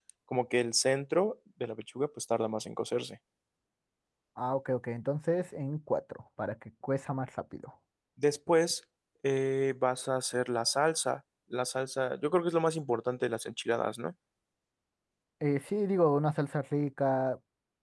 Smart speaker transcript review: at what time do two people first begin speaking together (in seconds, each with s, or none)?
none